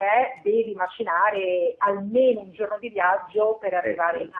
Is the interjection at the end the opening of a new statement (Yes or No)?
No